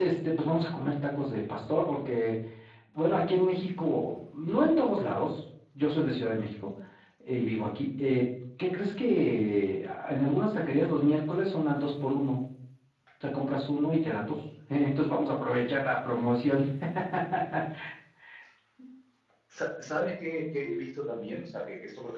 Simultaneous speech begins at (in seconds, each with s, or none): none